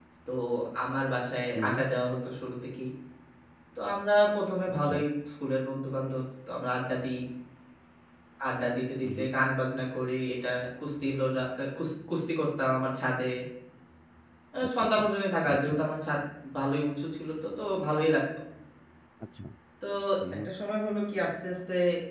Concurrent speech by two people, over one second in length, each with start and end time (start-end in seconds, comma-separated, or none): none